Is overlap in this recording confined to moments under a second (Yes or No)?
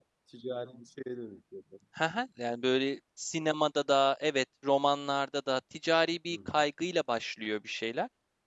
Yes